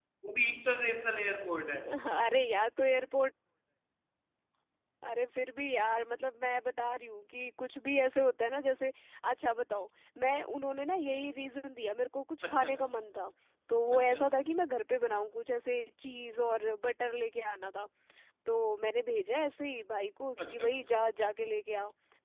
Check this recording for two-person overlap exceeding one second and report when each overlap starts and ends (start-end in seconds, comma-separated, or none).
none